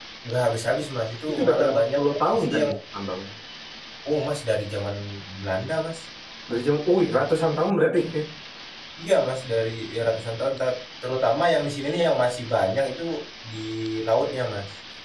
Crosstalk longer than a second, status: present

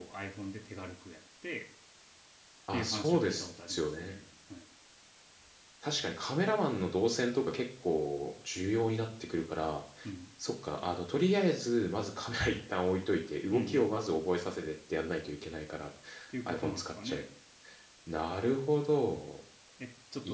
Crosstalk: present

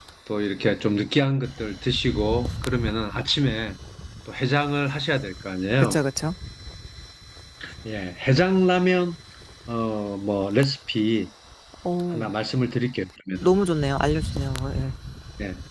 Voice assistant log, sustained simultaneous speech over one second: none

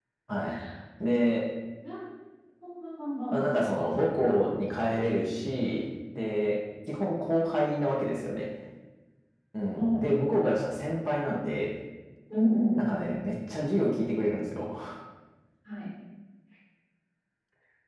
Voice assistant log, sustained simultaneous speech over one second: none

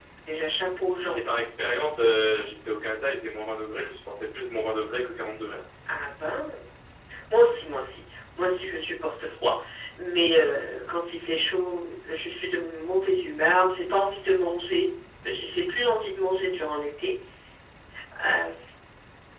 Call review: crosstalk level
none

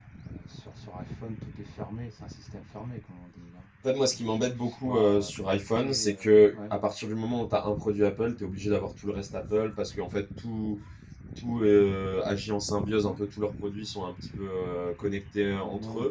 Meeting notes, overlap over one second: present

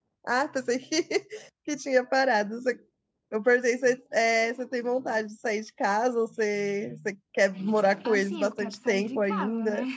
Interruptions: present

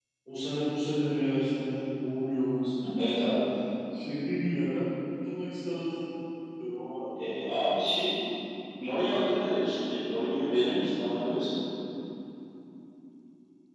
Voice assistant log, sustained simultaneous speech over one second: none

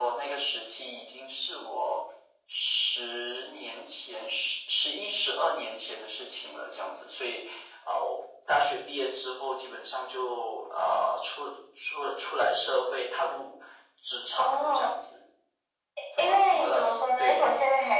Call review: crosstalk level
present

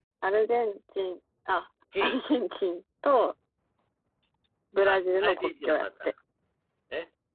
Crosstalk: present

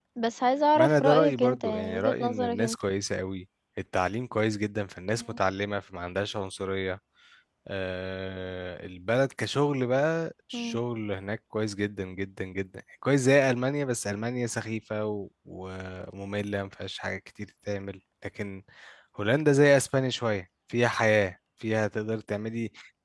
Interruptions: present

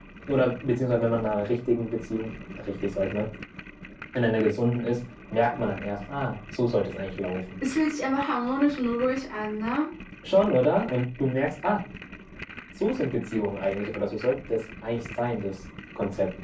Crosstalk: none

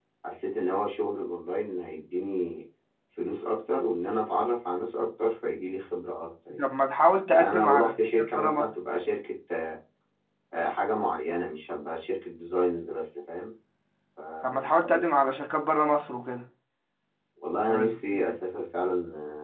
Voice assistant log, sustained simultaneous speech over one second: present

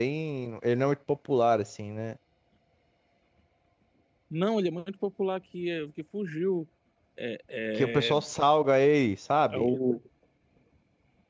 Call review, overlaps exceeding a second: none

